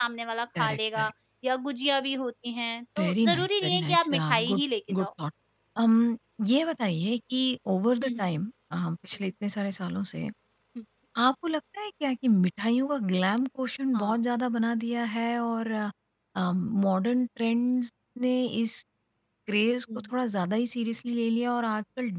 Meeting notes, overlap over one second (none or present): present